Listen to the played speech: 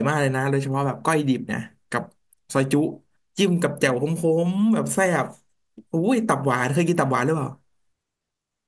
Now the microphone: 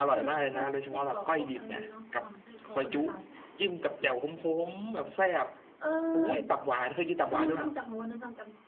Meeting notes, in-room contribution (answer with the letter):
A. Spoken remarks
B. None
A